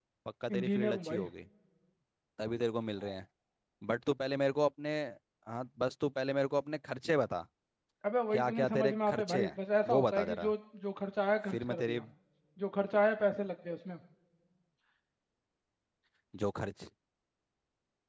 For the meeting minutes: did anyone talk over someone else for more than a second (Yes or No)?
Yes